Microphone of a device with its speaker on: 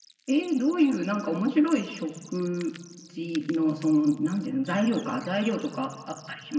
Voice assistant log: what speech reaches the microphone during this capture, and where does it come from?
echo only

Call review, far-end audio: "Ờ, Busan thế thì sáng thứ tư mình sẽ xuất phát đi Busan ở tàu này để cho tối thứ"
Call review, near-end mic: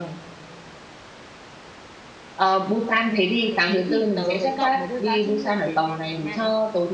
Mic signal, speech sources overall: both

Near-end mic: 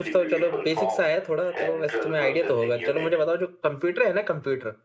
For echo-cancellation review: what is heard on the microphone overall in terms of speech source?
both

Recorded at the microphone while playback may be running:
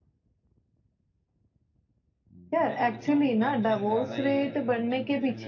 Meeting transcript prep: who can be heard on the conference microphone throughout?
both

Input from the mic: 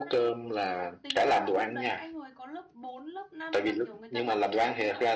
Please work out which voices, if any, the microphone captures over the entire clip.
both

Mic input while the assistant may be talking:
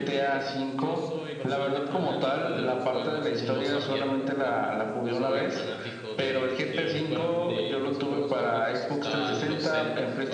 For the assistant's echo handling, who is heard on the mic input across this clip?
both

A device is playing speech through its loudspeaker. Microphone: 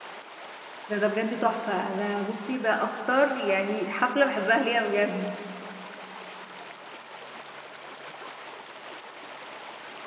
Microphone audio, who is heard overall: user only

